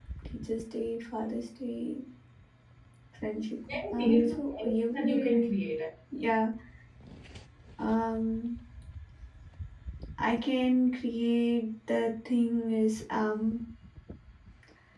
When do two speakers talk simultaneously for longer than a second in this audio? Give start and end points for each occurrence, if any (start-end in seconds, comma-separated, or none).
3.7-5.3